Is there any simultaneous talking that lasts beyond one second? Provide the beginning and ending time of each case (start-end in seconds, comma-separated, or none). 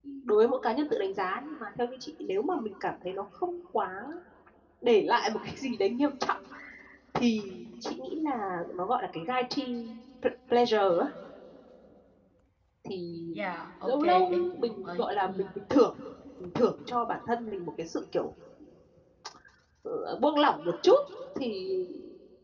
13.8-15.3